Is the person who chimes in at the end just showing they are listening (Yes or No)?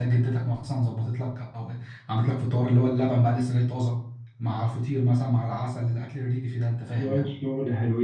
No